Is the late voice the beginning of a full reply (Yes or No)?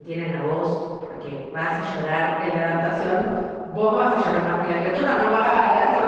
No